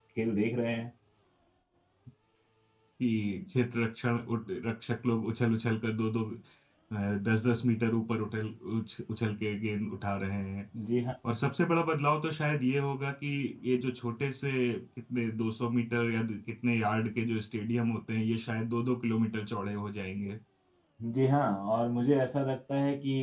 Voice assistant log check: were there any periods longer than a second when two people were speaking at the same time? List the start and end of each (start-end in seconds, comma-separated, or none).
none